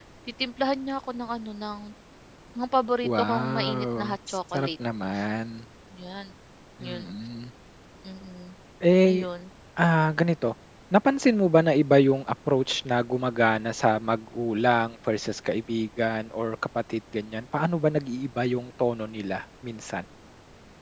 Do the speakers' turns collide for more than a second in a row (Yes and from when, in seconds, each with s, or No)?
Yes, from 3.1 s